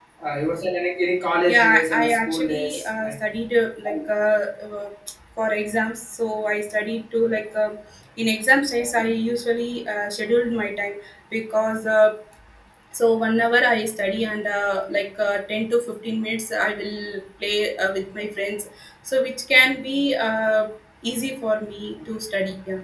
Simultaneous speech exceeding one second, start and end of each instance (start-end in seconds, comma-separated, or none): 1.5-3.1